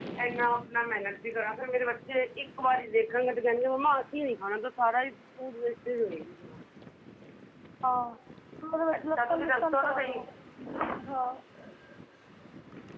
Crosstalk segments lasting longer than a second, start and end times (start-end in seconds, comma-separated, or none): 8.9-10.2